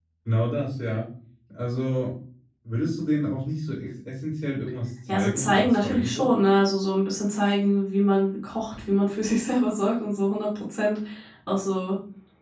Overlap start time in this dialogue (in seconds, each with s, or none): 5.1 s